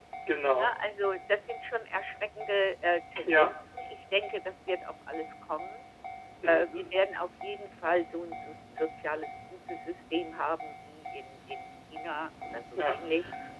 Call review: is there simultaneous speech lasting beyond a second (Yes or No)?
No